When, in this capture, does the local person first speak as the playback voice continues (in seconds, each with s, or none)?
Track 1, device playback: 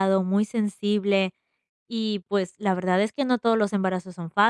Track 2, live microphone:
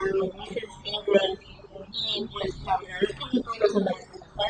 none